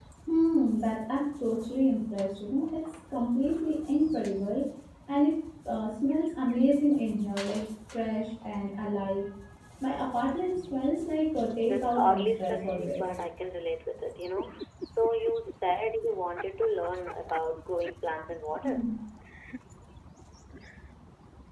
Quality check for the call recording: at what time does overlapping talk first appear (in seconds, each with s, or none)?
11.6 s